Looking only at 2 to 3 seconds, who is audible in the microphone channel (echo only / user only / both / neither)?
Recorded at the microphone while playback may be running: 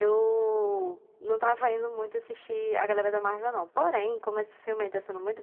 echo only